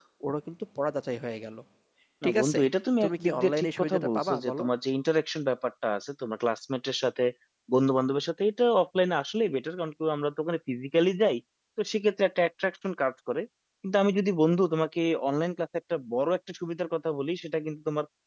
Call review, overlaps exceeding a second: present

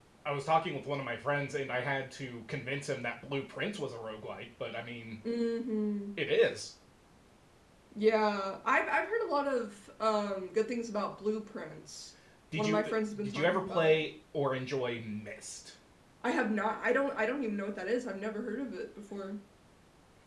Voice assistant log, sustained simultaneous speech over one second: present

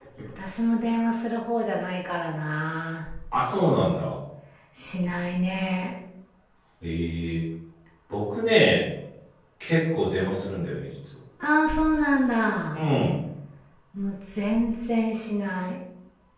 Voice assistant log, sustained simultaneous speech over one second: none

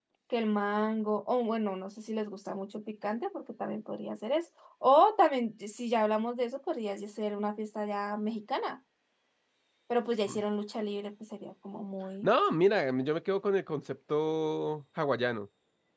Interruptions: none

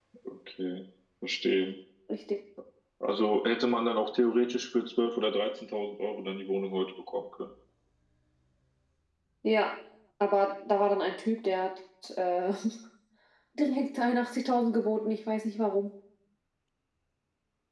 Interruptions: none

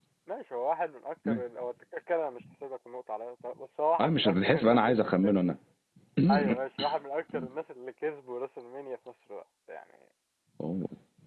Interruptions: present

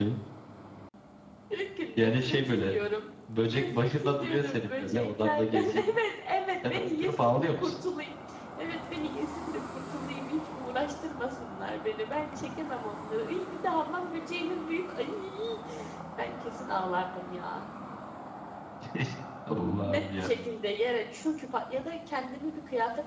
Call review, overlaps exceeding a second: present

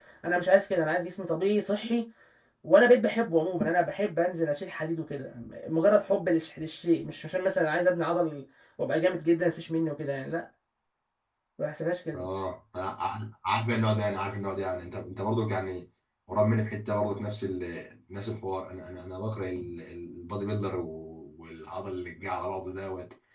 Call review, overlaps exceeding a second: none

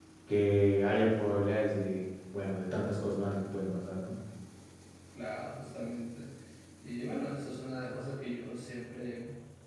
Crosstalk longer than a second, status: none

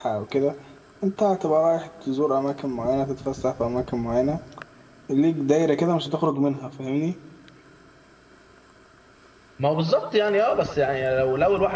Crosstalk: none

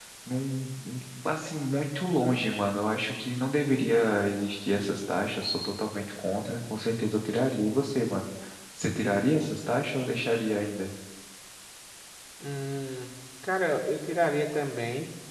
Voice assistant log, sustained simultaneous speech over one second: none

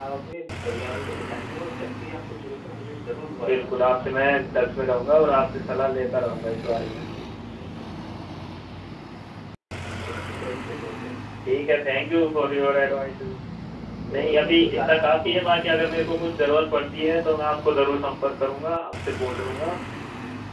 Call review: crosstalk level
present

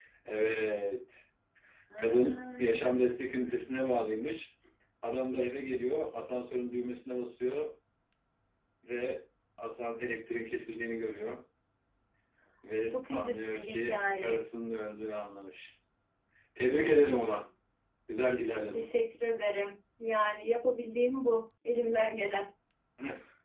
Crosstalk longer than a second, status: present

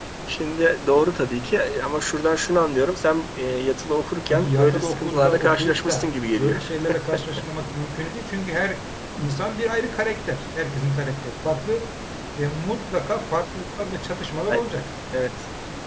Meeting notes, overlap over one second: present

